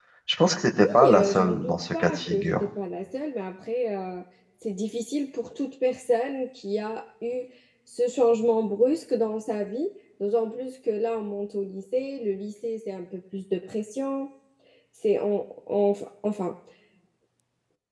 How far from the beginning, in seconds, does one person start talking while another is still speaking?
1.0 s

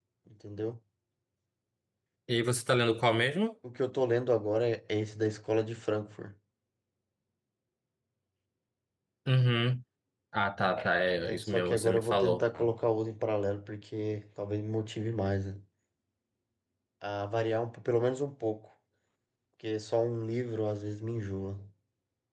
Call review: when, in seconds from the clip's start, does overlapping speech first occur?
11.2 s

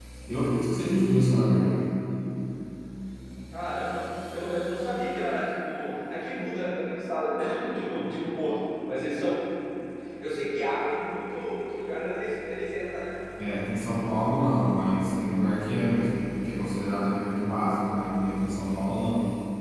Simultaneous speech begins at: none

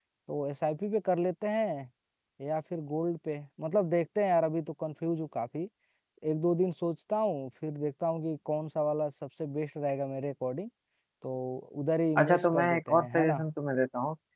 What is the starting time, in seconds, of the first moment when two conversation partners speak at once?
12.2 s

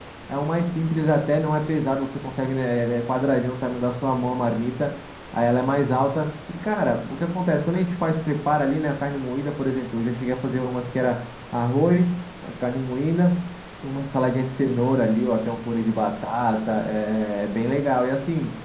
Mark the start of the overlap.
none

